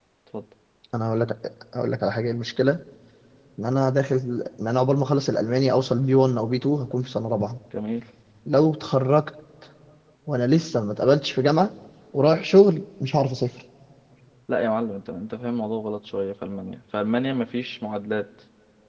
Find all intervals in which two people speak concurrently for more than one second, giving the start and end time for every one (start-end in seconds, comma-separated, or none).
none